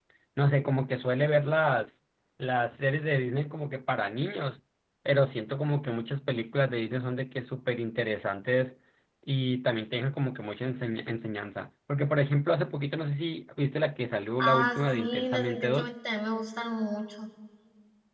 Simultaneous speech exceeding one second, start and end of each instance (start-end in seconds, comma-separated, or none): 14.4-15.9